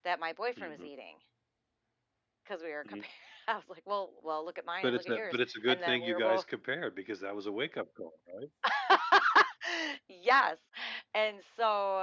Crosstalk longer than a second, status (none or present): present